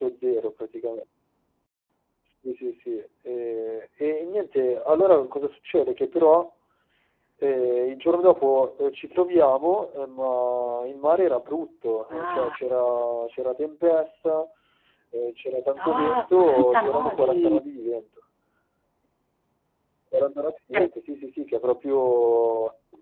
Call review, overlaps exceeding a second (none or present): present